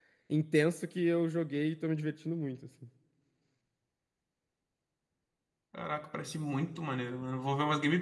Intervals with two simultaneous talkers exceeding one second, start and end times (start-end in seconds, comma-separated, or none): none